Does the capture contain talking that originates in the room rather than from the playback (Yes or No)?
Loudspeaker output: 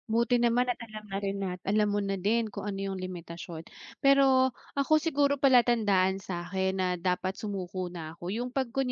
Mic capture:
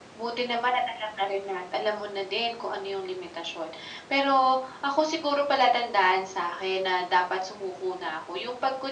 No